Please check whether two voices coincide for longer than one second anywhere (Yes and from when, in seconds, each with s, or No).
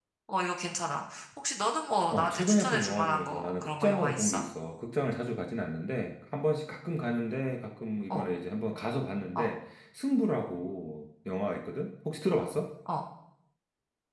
Yes, from 2.1 s